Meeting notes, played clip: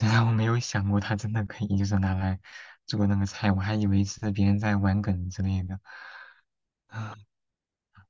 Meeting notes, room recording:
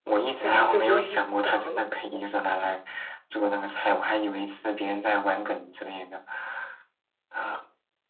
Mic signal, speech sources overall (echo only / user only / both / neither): both